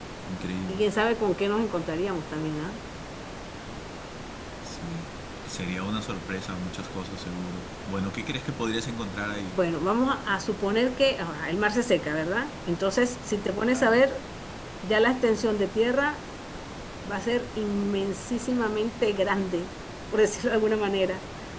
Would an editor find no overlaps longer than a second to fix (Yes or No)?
Yes